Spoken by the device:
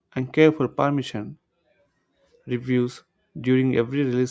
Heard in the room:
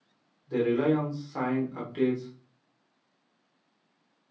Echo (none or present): none